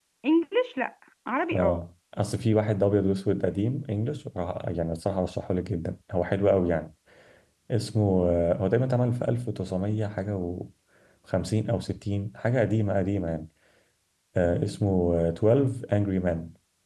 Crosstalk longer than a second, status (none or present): none